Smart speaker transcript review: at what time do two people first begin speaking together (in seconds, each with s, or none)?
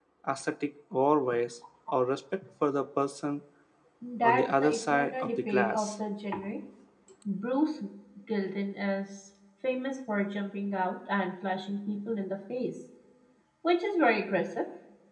4.2 s